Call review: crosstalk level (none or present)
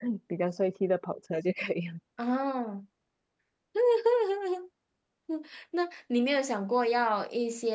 none